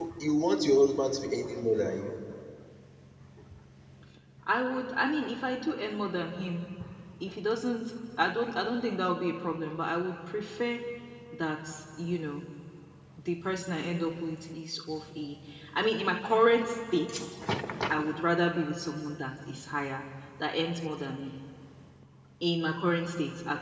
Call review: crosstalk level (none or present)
none